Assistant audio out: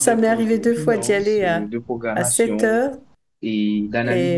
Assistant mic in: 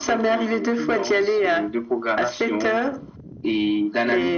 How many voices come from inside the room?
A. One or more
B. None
B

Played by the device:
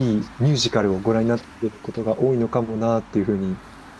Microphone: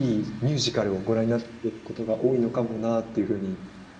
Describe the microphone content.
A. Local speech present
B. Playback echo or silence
B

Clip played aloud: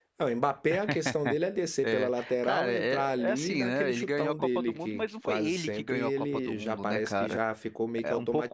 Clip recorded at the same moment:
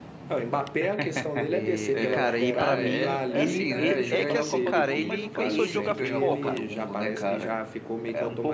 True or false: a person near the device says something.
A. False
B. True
B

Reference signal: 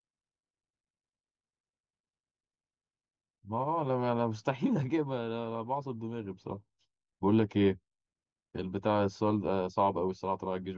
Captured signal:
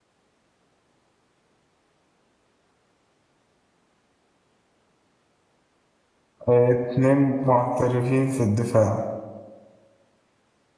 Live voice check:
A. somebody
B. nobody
A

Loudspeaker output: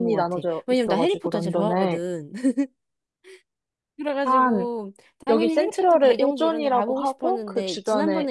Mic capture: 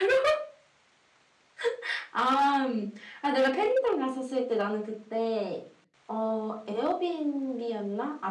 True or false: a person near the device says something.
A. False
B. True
B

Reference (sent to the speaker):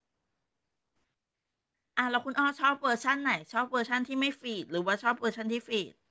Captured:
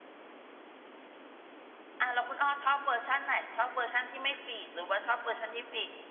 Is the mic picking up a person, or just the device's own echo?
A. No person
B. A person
A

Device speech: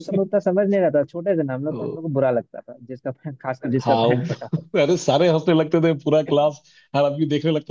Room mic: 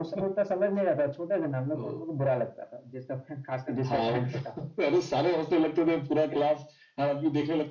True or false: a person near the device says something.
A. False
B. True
A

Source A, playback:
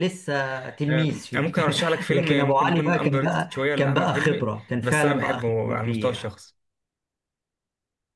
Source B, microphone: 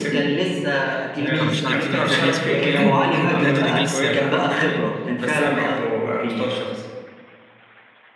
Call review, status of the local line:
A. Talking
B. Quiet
A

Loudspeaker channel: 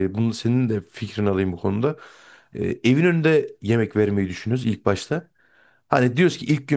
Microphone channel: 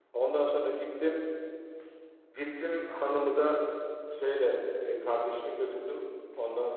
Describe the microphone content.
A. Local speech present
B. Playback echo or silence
A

